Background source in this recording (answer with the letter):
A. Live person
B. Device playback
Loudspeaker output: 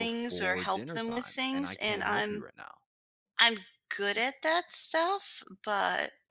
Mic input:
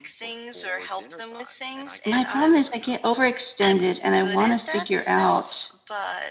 B